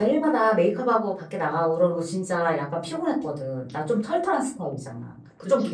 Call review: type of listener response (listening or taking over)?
taking over